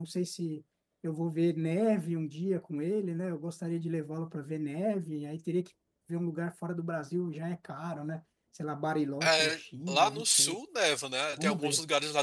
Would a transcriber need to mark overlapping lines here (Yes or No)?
Yes